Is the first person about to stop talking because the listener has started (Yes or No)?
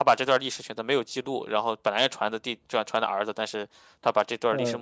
Yes